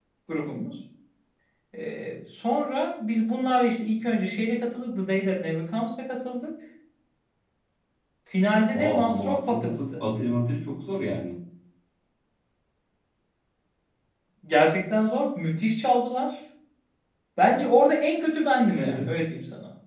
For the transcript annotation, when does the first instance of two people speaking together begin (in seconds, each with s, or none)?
8.7 s